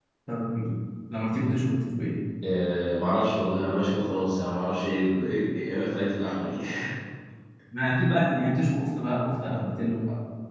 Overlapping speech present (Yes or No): No